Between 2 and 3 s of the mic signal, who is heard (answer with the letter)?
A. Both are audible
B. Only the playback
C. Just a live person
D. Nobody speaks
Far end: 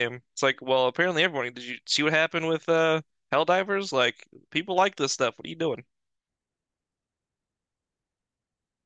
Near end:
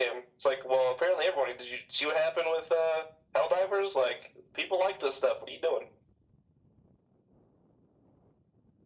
B